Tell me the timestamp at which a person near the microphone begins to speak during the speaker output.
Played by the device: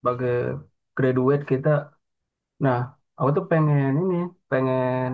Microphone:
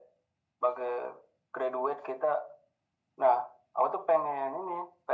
none

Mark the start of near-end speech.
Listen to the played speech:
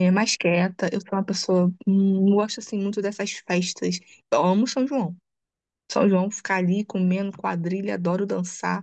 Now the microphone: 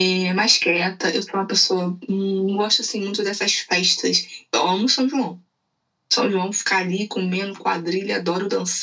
none

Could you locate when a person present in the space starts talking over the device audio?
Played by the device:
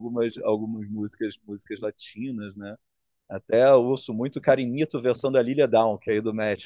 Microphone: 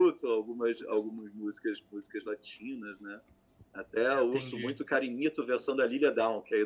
4.3 s

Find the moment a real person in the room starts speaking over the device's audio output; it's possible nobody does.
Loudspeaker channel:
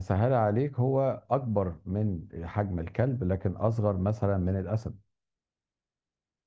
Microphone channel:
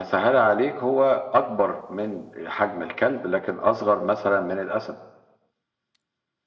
none

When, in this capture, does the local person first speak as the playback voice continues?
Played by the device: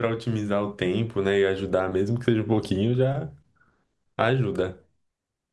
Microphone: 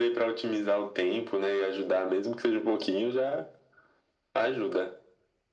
none

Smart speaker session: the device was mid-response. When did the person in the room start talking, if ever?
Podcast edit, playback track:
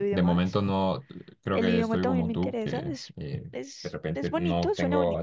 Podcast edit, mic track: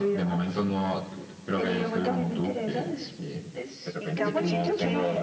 4.0 s

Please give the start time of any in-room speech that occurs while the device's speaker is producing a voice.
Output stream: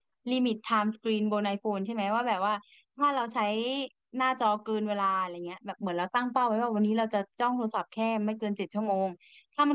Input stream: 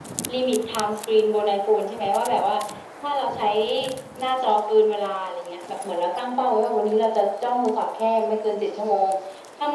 none

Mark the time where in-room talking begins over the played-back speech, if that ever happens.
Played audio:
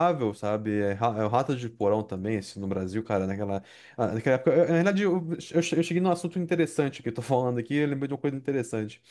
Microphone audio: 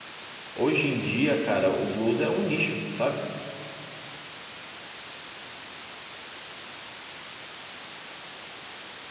0.5 s

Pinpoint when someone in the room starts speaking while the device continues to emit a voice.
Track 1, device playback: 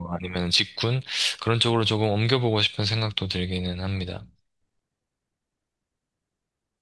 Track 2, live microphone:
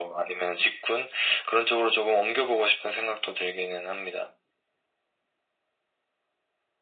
none

